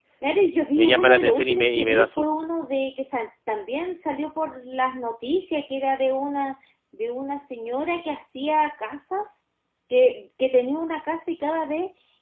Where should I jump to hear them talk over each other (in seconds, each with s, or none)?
0.8 s